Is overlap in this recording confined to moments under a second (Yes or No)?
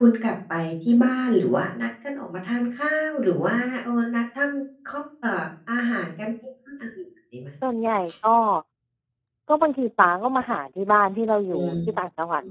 Yes